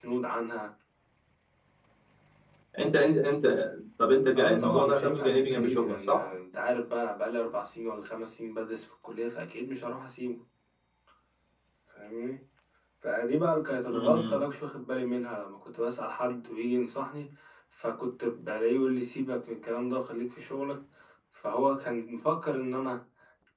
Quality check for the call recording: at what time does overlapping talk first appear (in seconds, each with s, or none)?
4.3 s